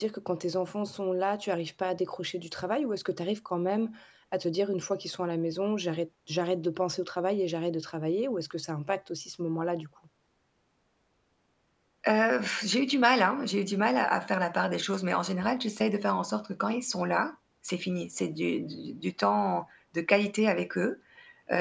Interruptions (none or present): none